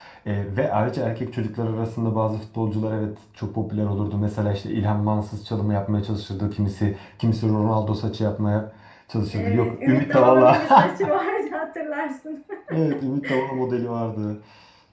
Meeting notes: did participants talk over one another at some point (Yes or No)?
Yes